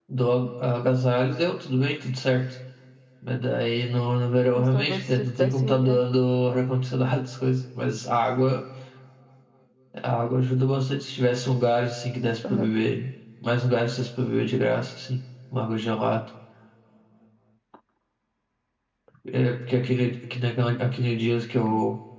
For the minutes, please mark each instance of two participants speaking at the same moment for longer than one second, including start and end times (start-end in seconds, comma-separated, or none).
4.6-6.0